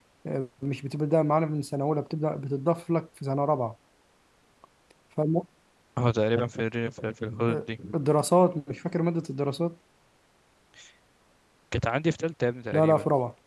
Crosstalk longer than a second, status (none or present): none